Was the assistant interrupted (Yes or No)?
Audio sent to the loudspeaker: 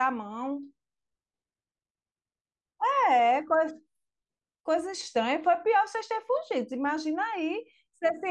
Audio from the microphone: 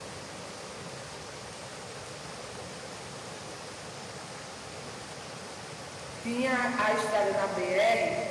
Yes